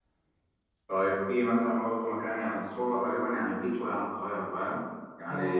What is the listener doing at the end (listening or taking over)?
listening